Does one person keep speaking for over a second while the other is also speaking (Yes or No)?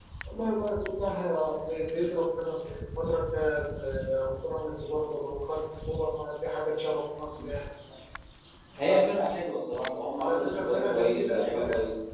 Yes